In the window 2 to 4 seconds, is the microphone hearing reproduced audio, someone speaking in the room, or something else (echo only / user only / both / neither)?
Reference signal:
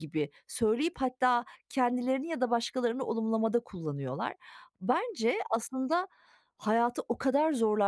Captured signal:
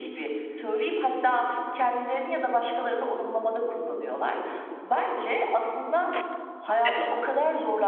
echo only